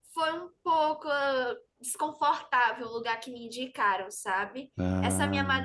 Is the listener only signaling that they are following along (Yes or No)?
Yes